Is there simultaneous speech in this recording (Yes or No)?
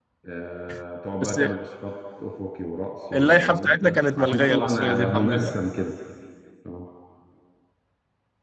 Yes